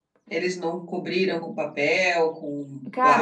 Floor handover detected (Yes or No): Yes